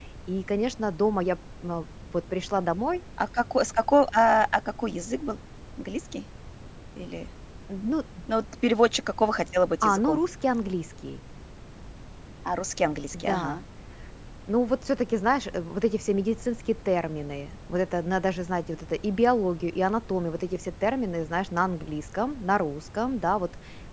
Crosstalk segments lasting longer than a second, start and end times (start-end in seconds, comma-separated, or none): none